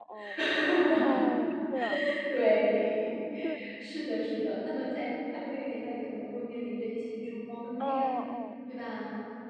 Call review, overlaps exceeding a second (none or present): none